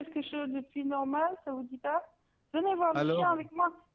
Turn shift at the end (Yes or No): No